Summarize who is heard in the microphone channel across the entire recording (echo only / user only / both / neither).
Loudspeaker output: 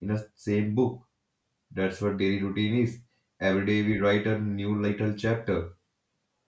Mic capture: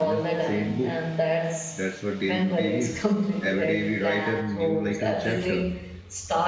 both